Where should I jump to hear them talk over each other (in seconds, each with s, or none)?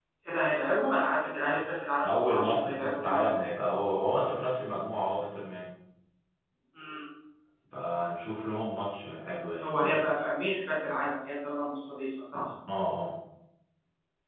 2.0 s